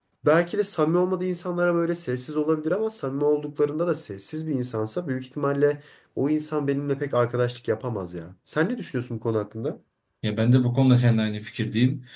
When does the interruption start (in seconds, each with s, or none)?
none